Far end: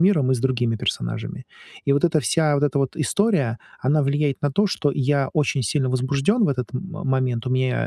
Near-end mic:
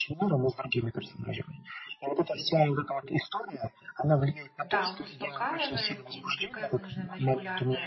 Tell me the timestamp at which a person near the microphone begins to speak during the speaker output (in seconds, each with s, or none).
4.0 s